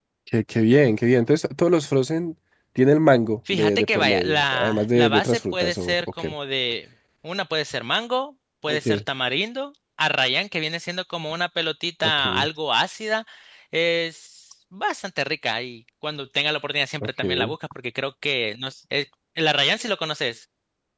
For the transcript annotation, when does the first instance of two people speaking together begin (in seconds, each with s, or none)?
3.5 s